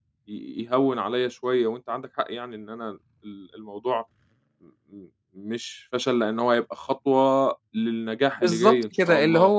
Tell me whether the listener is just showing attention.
No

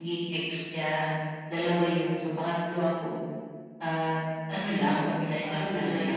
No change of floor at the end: No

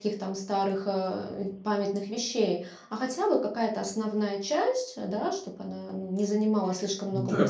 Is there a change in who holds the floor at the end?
Yes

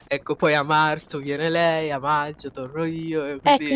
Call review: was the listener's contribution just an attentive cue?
No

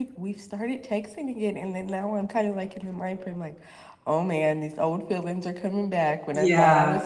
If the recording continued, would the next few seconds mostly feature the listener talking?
No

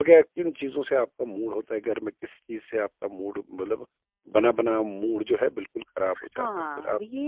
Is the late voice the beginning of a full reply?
Yes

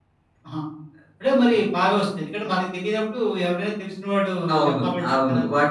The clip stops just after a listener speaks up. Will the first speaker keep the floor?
No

